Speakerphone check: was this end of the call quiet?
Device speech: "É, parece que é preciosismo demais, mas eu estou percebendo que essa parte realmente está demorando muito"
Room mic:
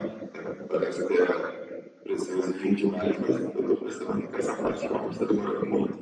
Yes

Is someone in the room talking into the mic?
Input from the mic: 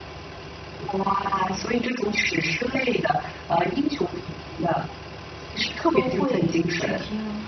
Yes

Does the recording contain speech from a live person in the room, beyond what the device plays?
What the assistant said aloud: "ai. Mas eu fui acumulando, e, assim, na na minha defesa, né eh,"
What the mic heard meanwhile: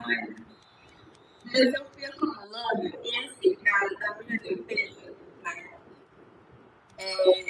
No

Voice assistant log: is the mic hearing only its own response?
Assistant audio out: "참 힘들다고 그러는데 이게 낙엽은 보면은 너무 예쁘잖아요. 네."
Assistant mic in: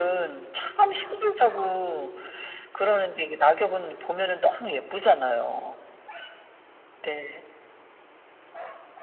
Yes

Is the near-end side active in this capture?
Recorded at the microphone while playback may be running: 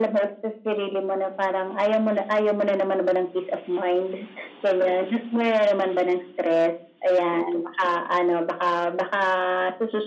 No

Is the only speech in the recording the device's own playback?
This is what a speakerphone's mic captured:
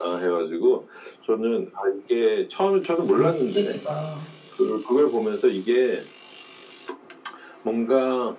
No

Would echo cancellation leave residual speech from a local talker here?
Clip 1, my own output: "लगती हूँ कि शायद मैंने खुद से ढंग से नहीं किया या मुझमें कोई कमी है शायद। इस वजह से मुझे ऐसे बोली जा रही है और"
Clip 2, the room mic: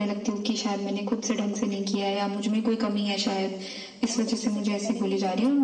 Yes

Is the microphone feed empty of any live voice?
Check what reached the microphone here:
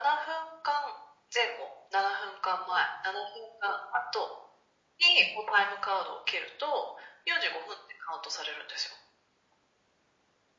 Yes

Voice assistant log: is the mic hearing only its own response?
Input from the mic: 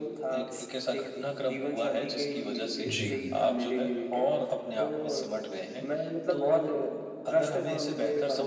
No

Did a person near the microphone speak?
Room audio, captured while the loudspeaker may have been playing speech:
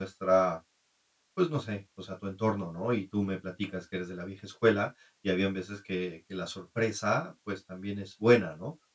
Yes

